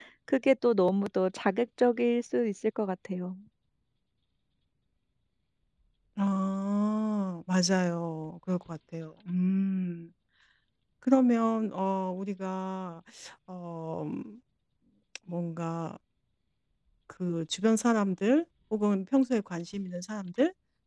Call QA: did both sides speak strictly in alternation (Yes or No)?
Yes